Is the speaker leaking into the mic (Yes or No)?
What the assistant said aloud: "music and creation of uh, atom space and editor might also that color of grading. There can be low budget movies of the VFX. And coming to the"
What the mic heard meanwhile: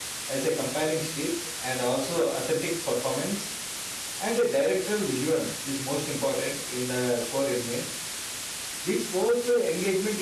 No